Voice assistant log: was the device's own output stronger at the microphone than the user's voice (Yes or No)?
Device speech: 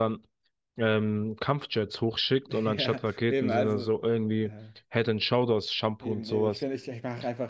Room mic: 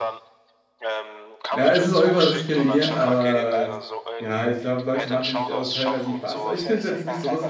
No